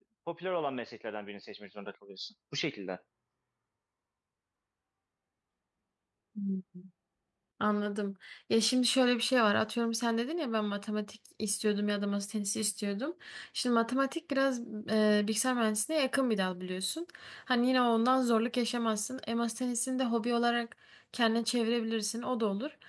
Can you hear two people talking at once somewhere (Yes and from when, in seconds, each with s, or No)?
No